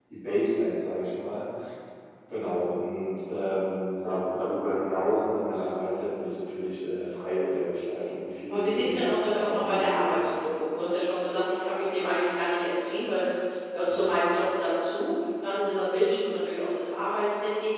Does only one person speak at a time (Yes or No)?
No